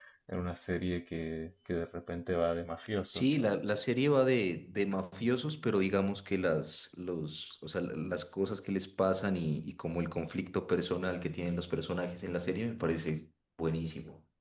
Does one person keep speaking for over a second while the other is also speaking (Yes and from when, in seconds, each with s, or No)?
No